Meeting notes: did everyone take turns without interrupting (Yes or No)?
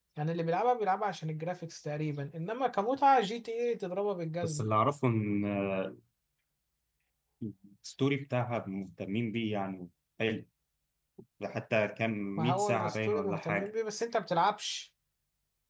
No